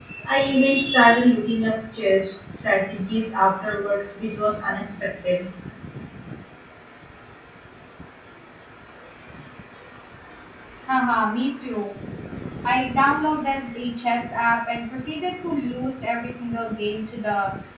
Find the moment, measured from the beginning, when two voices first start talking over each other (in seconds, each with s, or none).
none